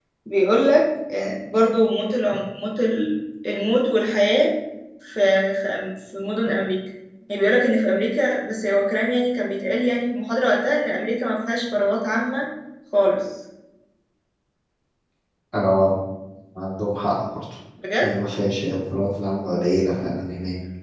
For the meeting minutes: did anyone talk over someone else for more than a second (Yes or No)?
No